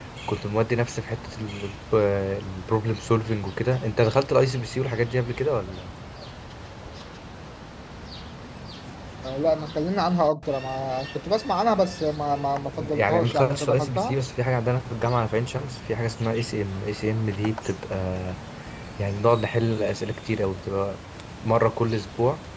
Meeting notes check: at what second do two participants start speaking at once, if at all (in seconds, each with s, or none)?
12.7 s